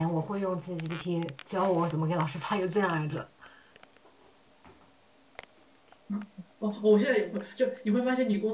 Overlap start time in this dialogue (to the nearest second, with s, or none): none